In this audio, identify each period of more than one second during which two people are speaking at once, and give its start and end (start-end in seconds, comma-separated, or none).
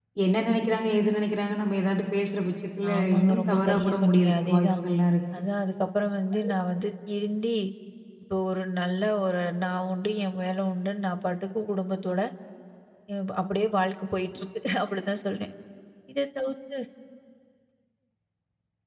2.9-4.8